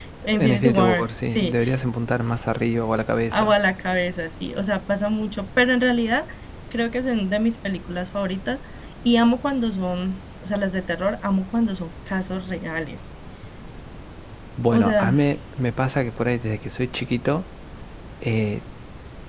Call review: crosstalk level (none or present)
present